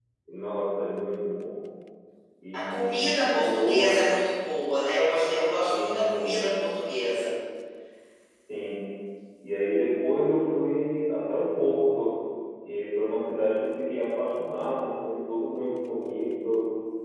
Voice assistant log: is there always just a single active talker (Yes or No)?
No